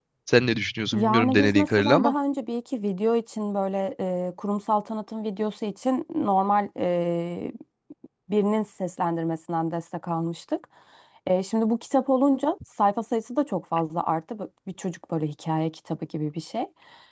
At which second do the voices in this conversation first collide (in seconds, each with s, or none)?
0.9 s